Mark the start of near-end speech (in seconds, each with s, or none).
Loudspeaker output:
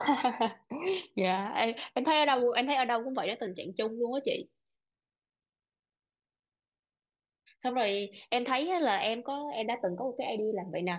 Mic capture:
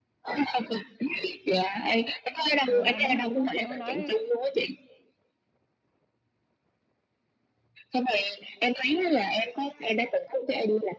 2.7 s